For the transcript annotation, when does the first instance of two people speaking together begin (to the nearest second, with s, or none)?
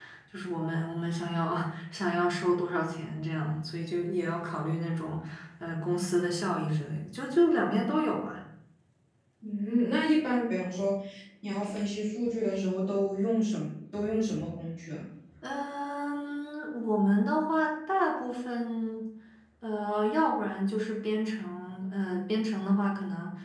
none